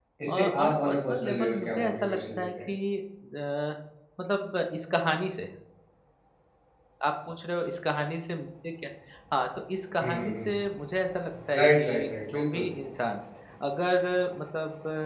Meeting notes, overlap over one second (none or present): present